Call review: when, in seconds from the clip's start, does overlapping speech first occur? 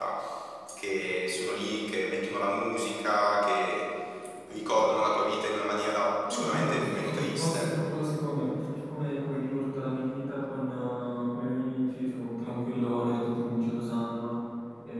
6.2 s

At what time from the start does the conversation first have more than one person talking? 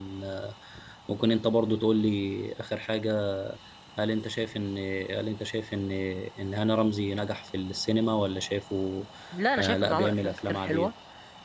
9.6 s

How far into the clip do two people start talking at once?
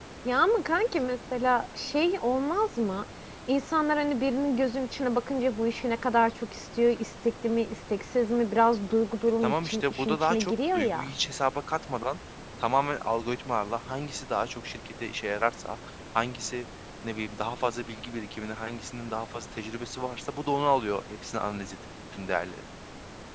9.4 s

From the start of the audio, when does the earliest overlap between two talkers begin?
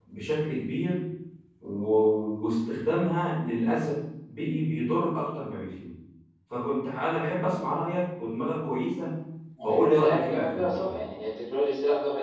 9.6 s

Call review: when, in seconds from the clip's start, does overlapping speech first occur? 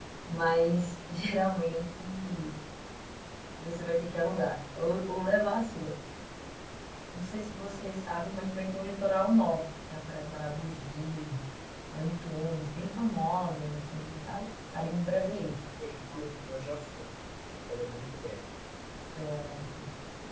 none

